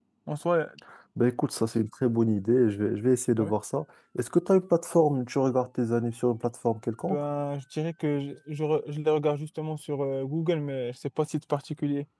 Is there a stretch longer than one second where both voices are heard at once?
No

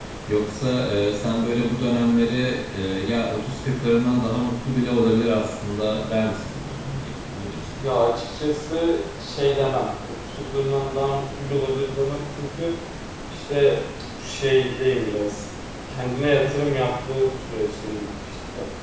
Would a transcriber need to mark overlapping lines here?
No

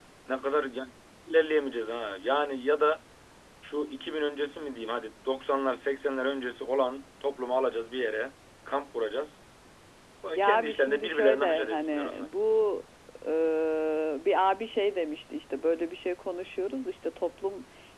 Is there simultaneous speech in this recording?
Yes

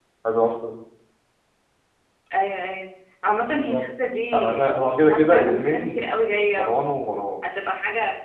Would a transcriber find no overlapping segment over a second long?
No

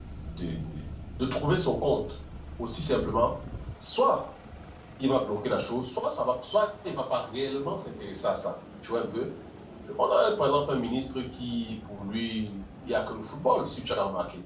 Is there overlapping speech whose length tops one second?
No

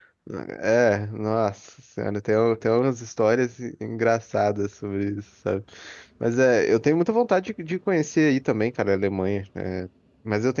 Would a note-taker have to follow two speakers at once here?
No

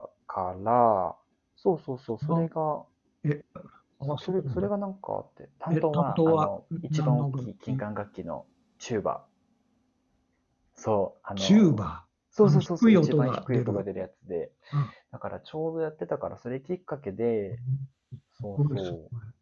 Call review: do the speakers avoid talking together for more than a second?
No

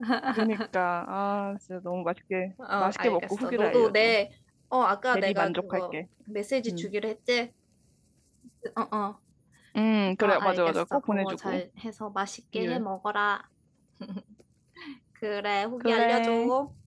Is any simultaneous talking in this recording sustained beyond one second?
Yes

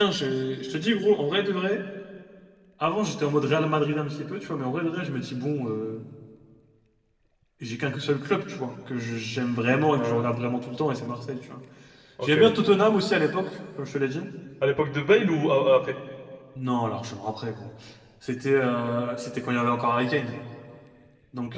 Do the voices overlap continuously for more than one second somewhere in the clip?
No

